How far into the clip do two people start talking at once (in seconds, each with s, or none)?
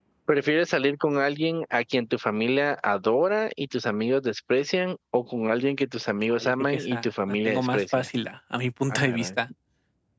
6.3 s